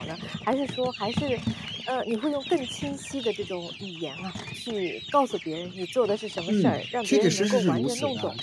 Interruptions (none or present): present